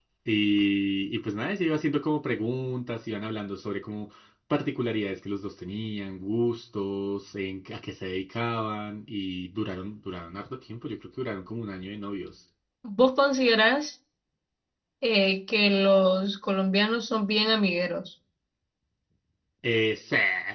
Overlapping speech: No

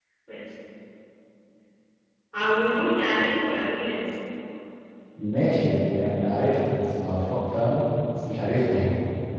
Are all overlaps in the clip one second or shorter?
Yes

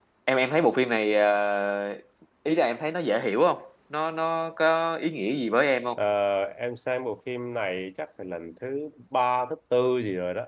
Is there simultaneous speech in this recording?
No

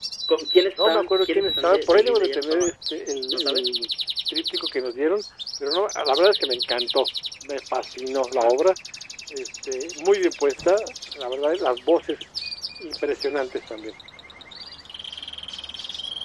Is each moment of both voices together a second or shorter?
No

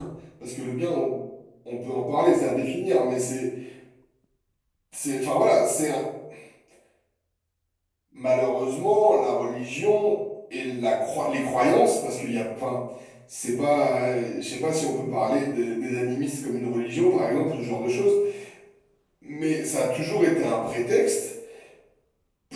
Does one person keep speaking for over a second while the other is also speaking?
No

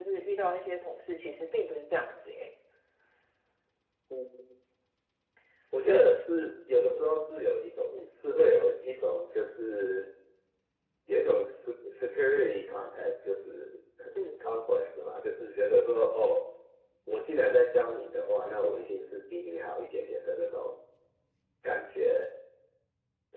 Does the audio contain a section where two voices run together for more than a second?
No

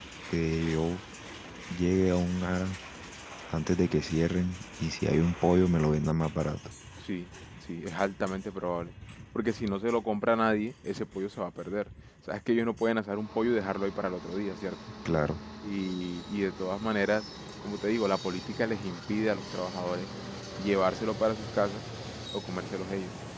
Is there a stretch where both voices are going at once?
No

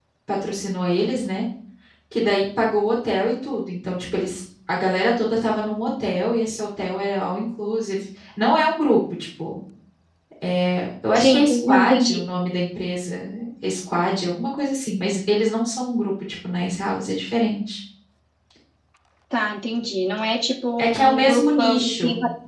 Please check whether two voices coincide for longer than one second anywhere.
Yes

